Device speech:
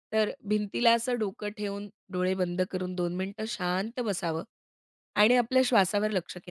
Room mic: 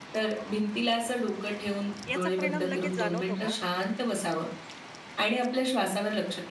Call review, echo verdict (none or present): present